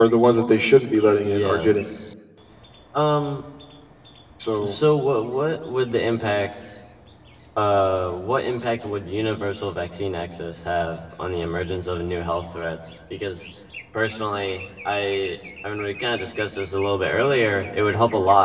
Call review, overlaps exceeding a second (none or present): none